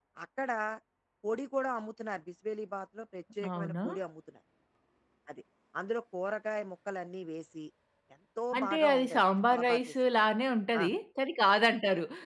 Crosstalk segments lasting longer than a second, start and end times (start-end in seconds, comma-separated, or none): 8.6-9.9